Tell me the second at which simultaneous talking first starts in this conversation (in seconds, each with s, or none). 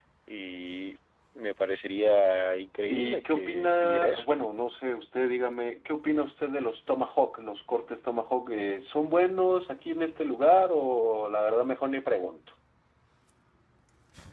2.9 s